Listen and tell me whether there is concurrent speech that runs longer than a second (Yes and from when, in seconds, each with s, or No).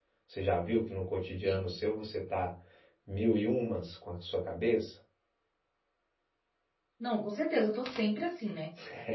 No